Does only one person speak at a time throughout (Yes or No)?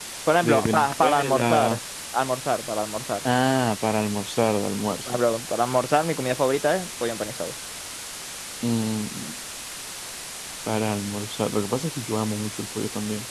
No